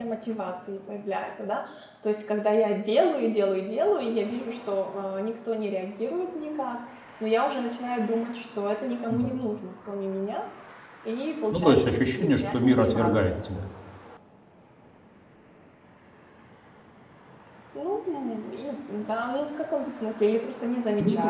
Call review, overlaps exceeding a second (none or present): present